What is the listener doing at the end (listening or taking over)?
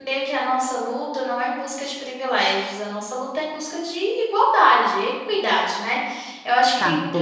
listening